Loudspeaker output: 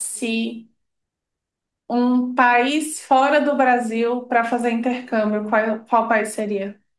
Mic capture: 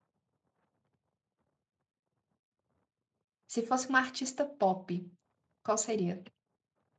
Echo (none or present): none